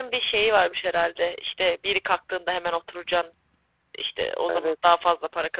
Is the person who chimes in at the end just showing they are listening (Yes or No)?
Yes